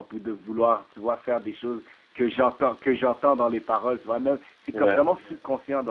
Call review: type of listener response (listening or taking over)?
listening